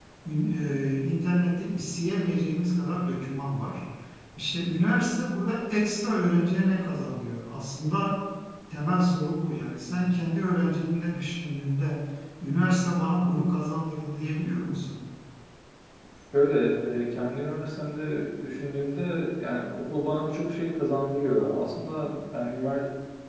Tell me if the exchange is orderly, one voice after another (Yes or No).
Yes